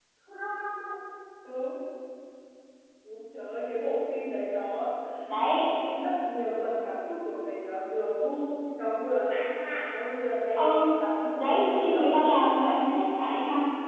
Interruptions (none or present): present